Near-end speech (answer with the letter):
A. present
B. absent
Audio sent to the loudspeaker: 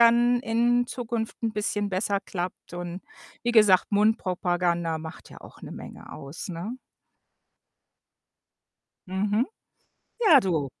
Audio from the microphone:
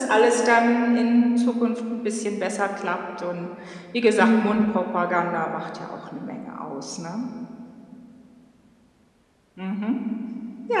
A